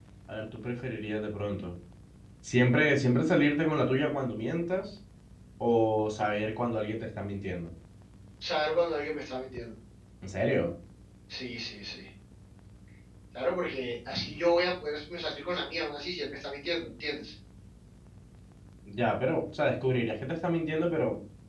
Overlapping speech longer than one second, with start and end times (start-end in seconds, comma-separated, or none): none